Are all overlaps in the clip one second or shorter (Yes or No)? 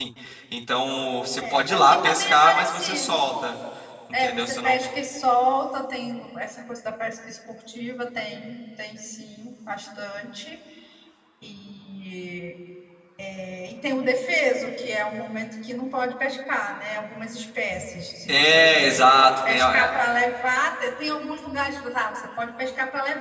No